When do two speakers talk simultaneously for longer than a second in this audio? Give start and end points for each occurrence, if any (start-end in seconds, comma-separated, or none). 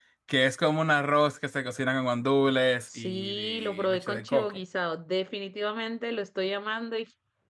3.0-4.5